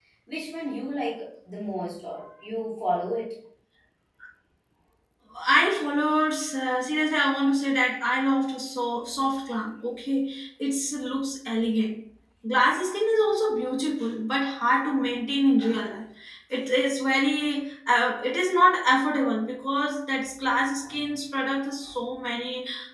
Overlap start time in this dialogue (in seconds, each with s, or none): none